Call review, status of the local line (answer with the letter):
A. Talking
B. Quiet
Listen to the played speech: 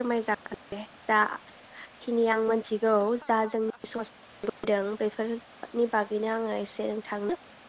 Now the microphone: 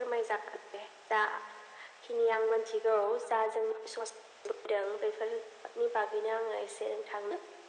B